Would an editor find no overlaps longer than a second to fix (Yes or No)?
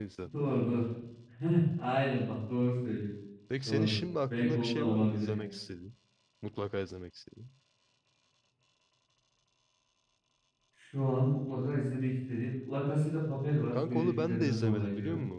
No